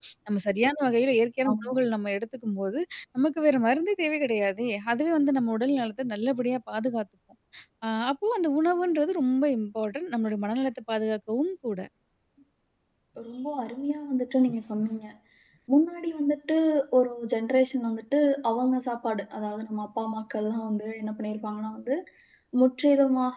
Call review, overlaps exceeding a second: none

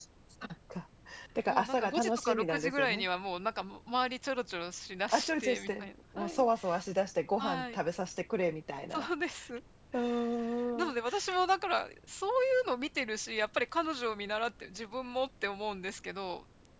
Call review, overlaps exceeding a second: present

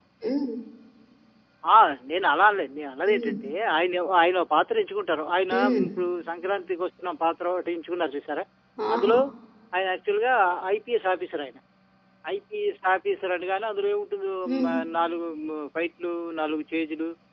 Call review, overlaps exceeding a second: none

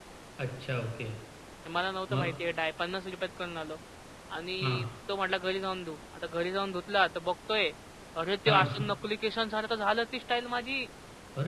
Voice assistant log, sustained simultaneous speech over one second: none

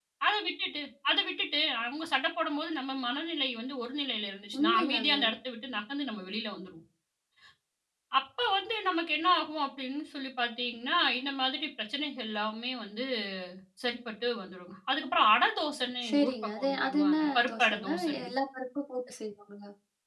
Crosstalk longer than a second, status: present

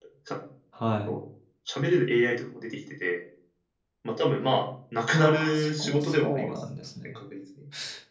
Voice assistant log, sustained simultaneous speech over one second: present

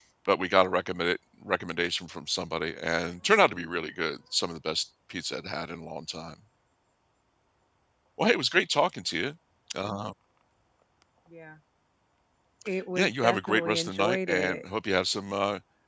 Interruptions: present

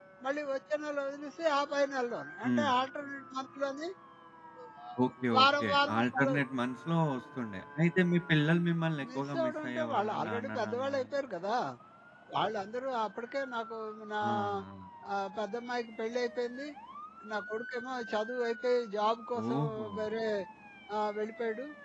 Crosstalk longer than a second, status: present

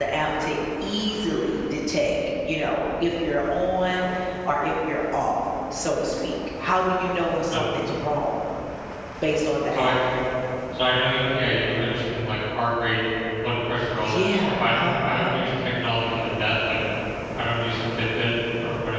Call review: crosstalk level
present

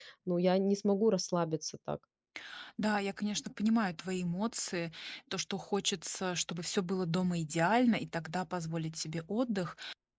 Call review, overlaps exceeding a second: none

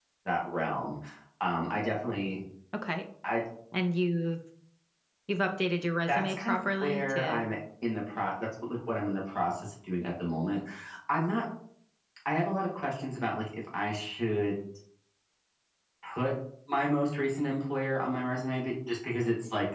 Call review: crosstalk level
present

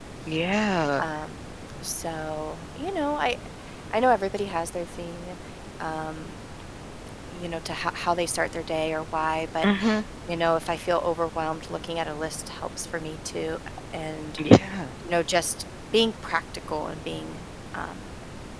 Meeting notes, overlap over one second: none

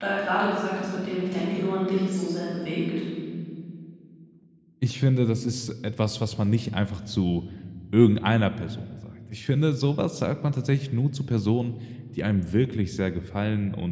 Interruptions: none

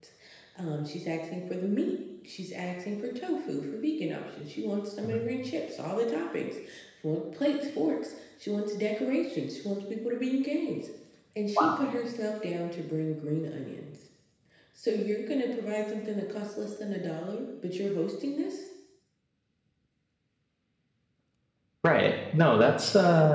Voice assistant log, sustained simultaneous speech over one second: none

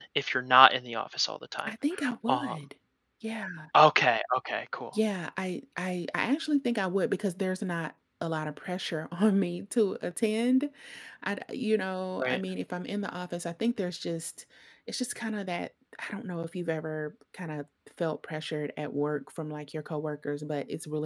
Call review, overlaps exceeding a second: none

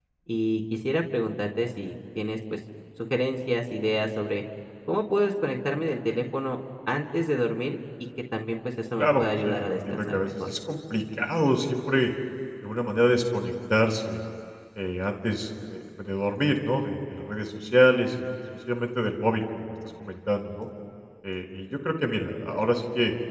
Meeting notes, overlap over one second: present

